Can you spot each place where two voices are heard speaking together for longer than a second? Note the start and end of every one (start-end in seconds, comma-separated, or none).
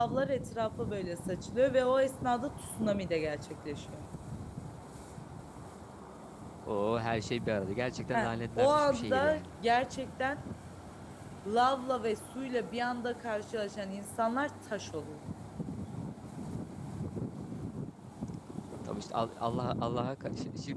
8.1-9.4